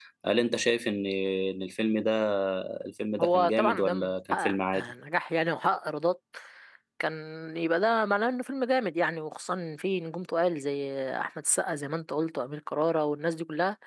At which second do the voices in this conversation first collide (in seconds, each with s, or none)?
3.2 s